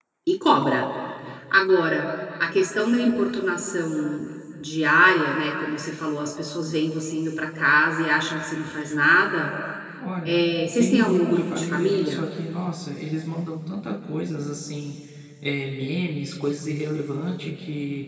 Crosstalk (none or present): present